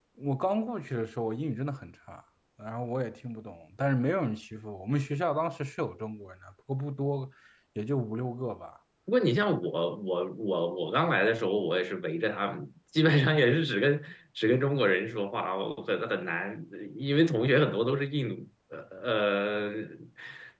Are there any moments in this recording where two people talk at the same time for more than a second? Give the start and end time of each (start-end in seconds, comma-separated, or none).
none